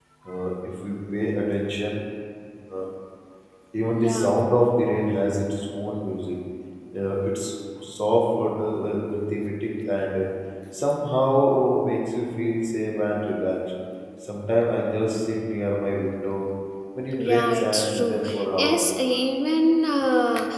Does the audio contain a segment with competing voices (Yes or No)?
Yes